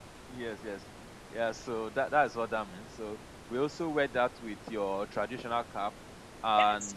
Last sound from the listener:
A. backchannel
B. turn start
B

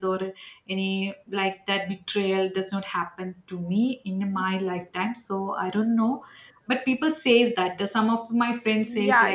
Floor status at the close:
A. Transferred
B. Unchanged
A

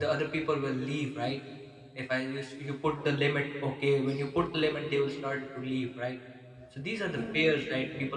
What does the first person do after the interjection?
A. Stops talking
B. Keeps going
B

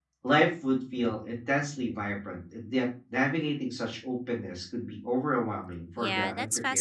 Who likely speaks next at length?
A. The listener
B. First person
A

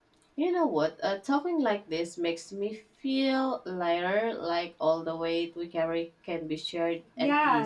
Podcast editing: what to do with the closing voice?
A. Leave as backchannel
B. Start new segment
B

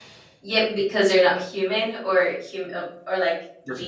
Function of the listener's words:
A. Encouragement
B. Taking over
B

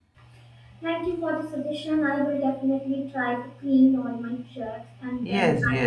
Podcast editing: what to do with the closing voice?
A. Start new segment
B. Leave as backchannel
A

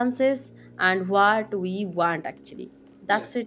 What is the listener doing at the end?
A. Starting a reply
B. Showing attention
B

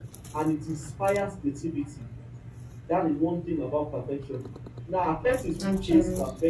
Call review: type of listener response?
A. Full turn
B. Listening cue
B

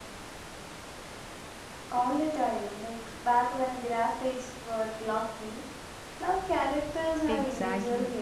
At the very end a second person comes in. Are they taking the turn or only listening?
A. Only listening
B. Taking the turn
B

